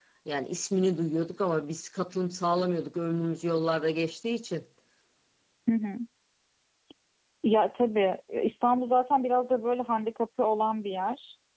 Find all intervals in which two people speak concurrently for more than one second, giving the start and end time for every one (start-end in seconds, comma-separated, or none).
none